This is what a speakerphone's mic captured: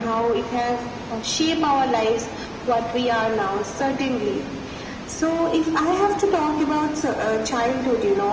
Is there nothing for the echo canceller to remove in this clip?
No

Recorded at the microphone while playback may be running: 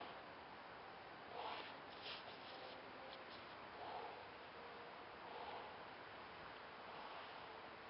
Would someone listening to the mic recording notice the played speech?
No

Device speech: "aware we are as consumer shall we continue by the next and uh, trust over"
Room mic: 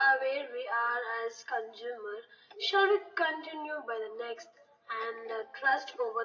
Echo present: Yes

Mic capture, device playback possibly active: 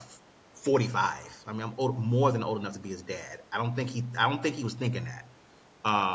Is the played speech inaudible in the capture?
Yes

